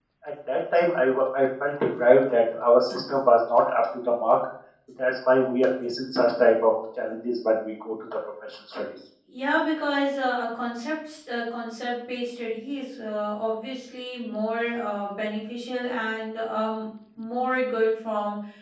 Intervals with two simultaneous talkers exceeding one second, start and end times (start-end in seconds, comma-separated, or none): none